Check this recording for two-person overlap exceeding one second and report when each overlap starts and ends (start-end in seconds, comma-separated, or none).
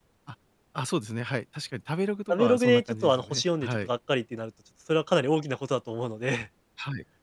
2.3-3.9